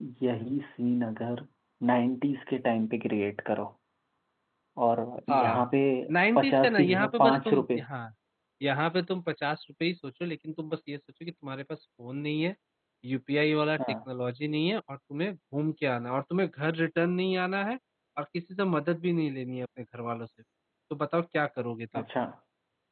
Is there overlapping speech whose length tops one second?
Yes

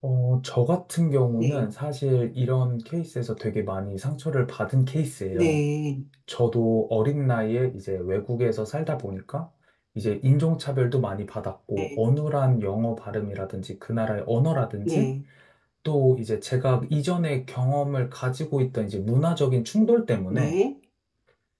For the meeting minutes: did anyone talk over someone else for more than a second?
No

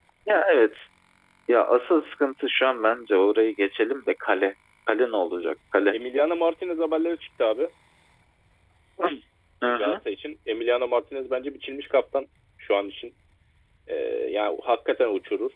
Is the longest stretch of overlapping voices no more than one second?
Yes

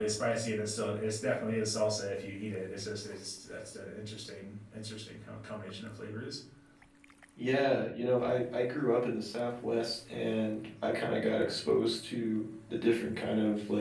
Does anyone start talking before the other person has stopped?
No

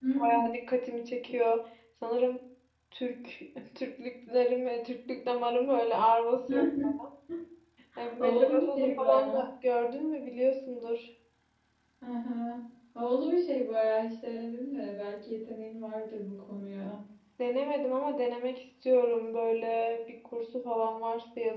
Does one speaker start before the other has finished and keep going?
Yes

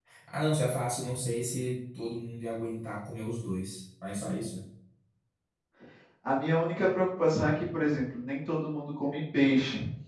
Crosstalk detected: No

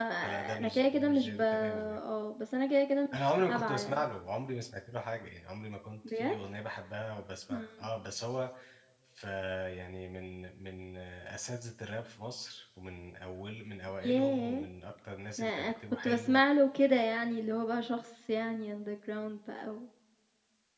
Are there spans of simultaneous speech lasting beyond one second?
Yes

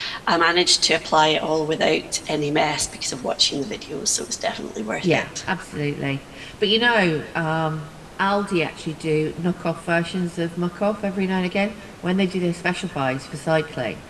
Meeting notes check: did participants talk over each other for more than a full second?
No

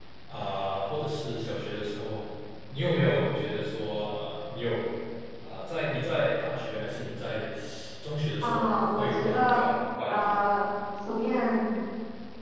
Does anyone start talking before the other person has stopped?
Yes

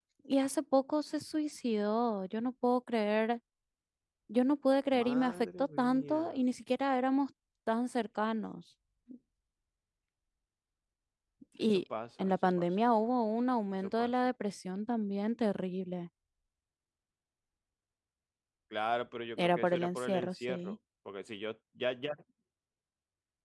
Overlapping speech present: Yes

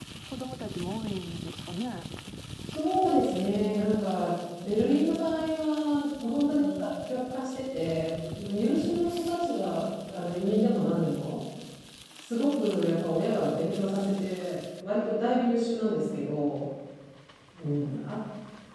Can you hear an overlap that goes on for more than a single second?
No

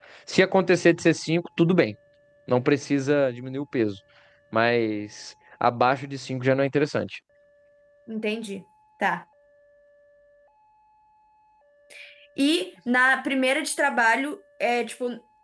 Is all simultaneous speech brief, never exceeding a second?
Yes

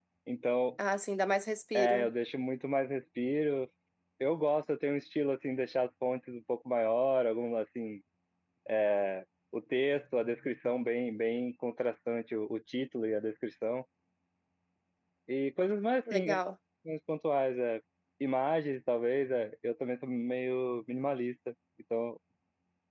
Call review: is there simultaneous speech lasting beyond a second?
No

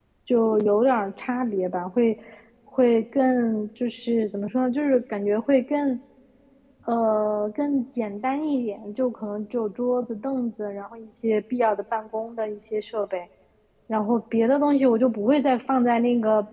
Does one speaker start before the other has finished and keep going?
No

